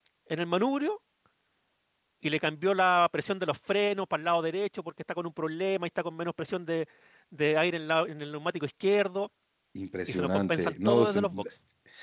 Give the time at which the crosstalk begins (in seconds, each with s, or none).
10.1 s